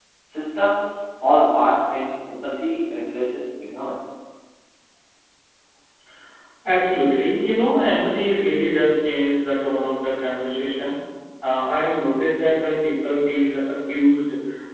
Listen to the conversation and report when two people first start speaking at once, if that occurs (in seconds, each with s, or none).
none